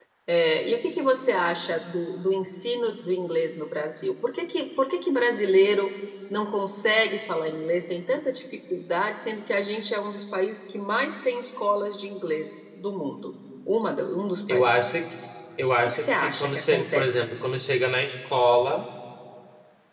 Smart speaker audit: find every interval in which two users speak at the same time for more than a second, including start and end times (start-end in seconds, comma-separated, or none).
15.8-17.2